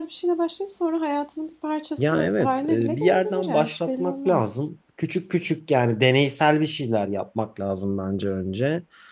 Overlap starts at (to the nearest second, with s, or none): 2 s